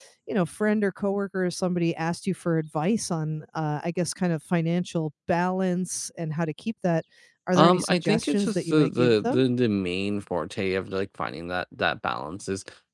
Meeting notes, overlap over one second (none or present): present